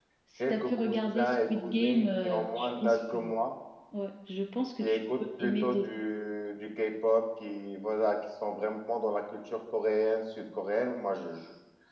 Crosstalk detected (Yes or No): Yes